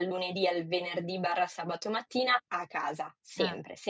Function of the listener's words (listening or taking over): listening